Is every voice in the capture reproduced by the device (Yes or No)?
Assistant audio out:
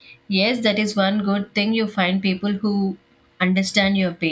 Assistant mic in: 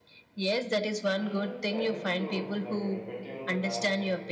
No